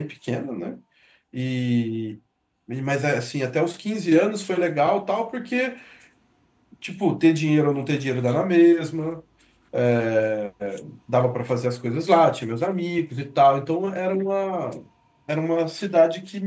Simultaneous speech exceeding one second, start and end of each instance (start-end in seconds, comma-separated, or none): none